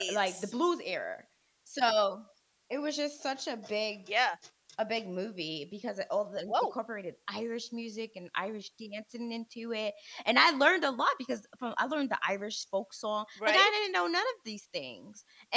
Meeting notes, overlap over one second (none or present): none